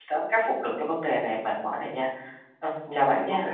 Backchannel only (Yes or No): No